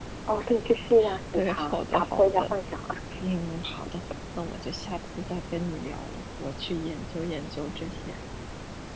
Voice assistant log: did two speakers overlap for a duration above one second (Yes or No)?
Yes